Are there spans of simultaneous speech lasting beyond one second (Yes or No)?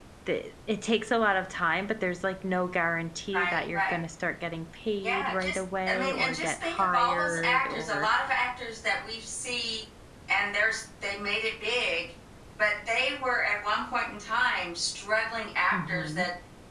Yes